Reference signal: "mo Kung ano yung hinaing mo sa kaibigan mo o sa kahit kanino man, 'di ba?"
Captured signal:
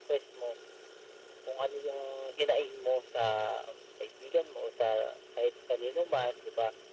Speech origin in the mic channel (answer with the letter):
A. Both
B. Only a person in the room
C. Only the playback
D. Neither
C